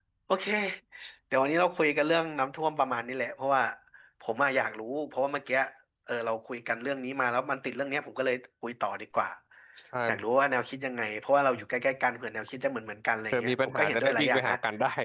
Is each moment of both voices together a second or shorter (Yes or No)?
No